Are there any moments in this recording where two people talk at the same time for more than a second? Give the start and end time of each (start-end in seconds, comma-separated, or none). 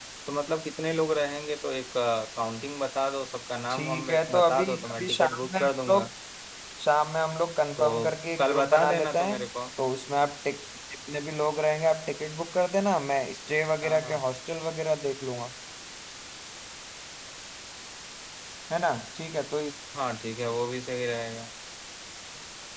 3.7-6.1, 7.8-9.4